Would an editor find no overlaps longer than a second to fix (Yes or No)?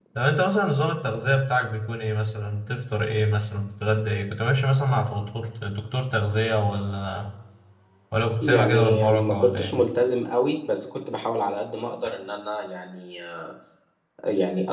No